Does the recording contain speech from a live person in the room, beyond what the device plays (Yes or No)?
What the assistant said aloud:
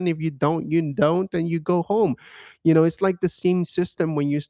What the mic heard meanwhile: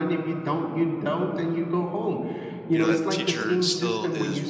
Yes